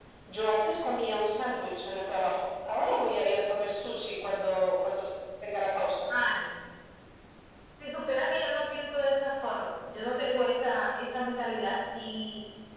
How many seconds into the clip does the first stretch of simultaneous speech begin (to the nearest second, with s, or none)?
none